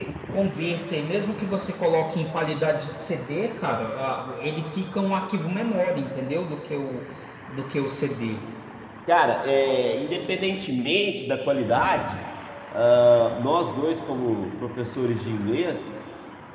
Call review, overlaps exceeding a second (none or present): none